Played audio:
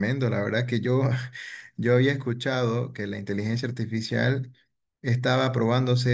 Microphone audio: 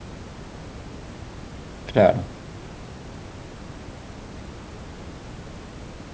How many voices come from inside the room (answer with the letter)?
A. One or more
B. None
A